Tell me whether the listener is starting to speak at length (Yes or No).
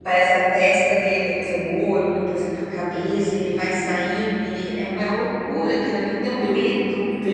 Yes